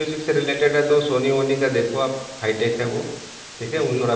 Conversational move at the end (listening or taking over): listening